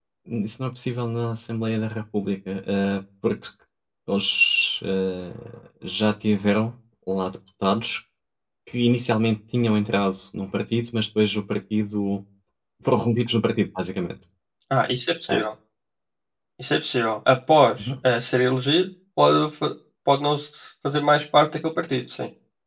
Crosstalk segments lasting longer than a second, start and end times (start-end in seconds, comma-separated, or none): none